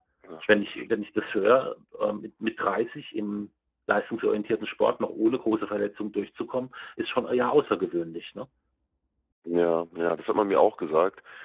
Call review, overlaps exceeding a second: none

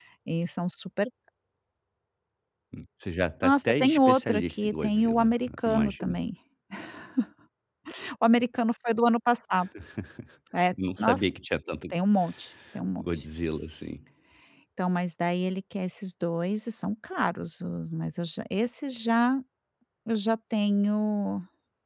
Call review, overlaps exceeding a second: present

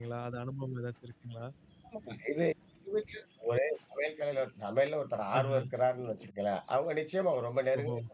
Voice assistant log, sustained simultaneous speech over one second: none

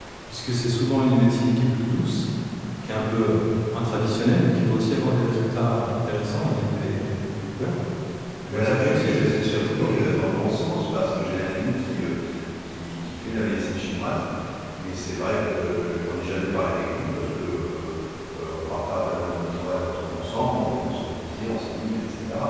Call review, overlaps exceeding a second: present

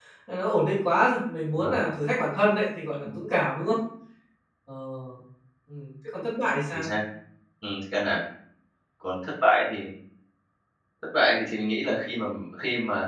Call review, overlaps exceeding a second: none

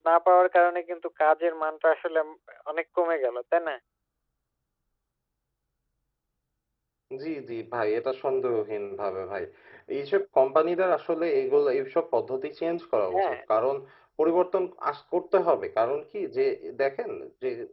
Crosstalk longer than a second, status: none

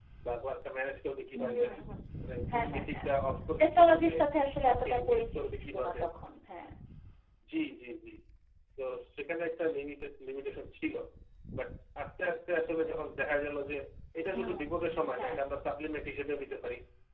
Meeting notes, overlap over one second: present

